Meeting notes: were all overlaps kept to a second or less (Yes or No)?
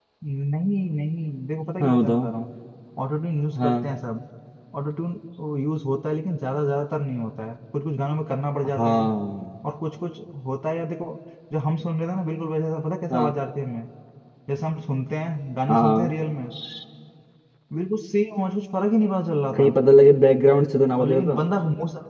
Yes